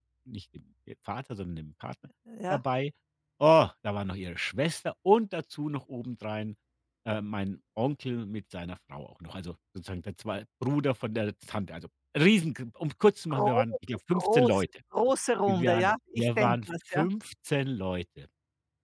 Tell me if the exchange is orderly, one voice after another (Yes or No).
No